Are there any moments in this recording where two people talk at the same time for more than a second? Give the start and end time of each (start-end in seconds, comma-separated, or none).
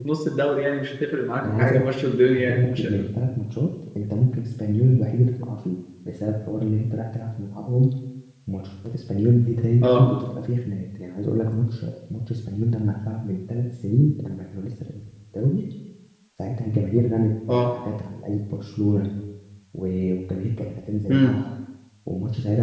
1.4-2.8